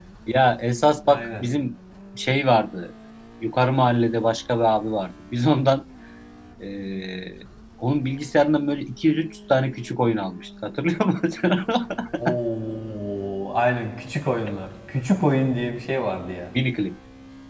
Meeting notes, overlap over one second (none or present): none